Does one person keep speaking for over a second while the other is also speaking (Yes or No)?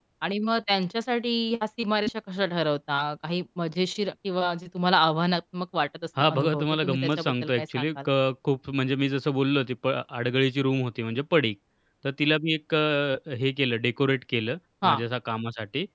Yes